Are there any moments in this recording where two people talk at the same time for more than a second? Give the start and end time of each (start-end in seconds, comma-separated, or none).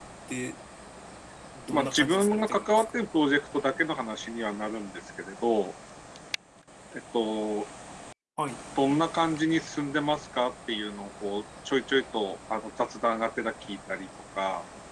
1.7-2.9